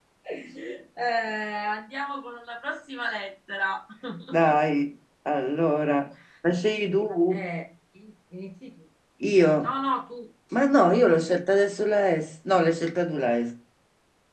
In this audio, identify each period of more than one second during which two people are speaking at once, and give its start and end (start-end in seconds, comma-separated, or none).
none